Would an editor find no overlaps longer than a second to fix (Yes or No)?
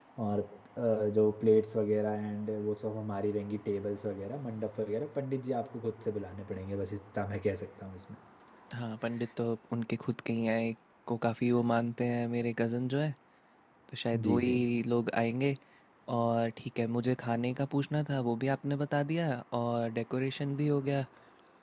Yes